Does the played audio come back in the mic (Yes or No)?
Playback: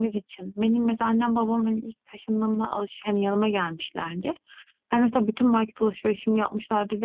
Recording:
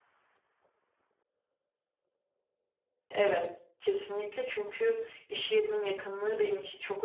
No